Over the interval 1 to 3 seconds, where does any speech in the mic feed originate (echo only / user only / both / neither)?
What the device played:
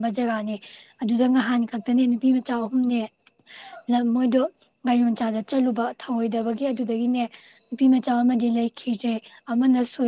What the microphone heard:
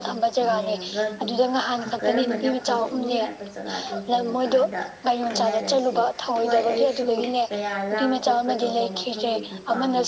both